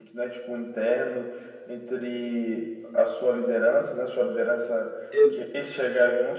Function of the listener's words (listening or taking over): listening